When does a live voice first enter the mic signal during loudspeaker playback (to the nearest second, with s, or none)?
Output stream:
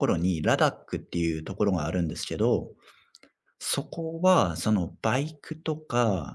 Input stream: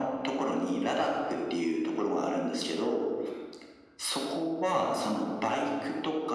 none